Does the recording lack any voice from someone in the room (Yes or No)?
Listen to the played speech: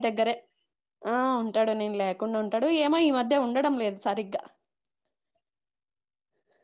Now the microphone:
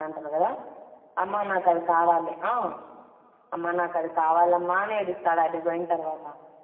No